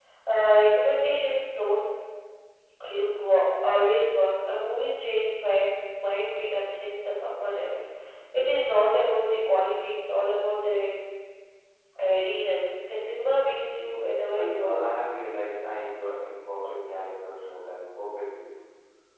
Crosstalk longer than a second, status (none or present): none